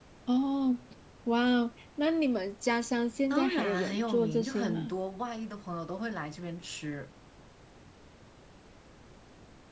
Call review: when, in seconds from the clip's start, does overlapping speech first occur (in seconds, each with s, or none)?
3.3 s